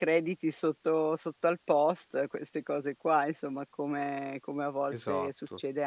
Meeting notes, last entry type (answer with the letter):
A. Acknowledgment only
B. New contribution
A